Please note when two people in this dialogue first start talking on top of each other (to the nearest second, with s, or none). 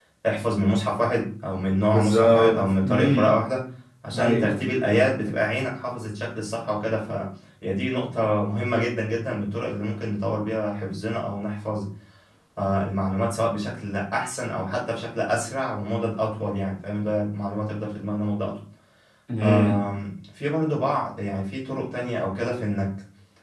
2 s